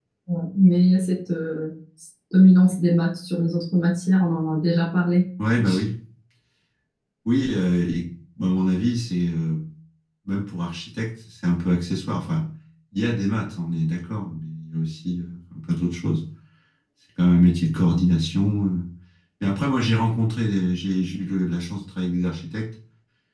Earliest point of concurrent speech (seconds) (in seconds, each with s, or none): none